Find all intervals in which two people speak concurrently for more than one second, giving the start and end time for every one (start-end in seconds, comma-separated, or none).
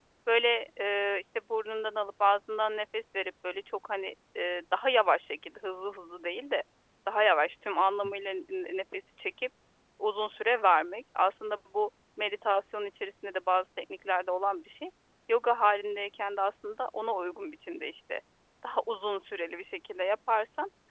none